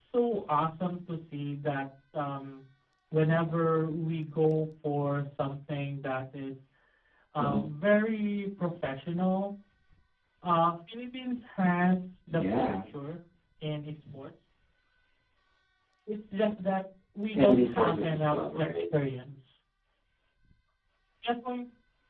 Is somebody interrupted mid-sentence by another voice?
Yes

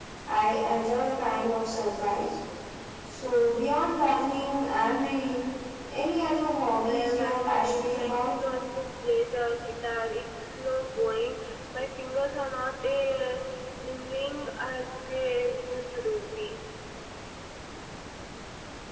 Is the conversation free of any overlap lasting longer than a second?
No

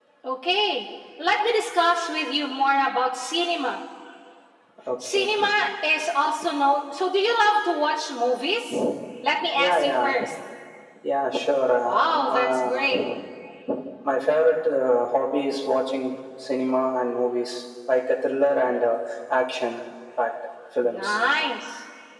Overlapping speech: Yes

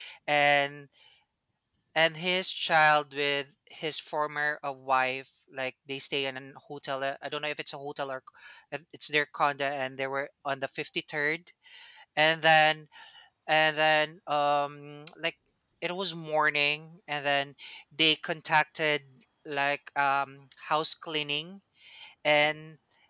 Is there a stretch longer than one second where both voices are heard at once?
No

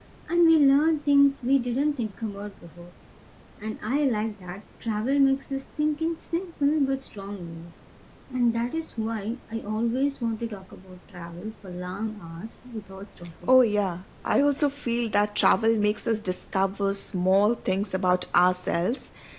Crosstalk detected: No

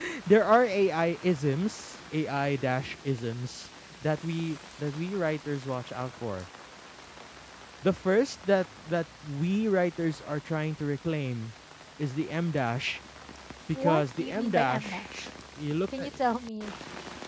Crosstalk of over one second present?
Yes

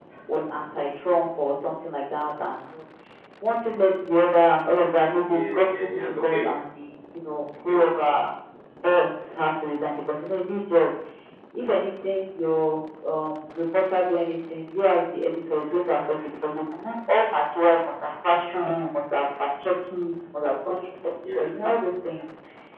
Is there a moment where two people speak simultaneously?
Yes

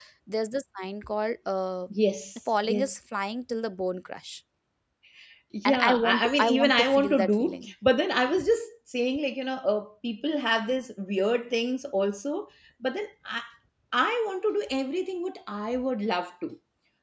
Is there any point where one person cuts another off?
Yes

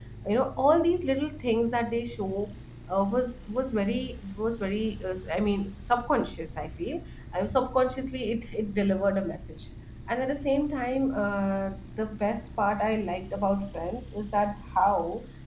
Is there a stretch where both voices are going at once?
No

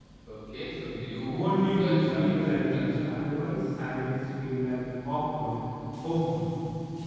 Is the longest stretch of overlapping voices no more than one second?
No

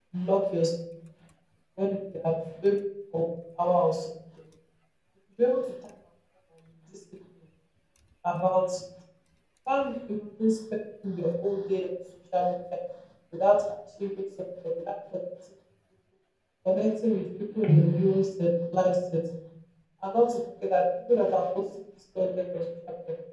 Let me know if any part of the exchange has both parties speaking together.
No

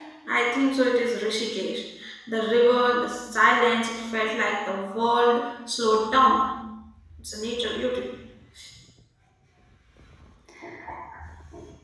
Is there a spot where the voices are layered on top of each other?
No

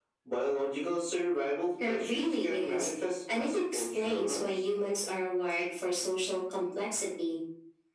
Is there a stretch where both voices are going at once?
Yes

